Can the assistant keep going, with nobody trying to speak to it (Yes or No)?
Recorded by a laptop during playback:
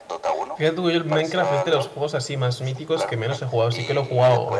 No